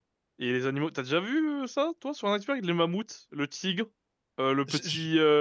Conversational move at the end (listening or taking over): listening